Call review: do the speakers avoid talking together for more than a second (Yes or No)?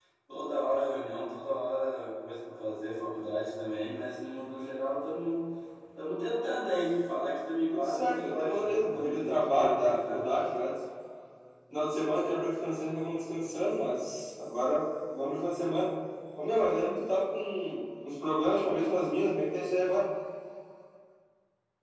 No